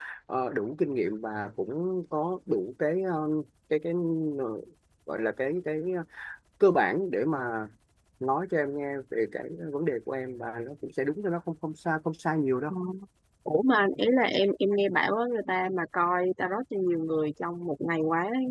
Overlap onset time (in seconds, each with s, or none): none